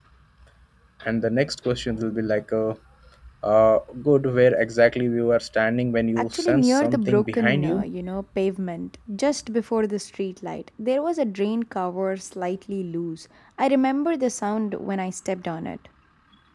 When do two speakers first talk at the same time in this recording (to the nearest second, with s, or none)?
6 s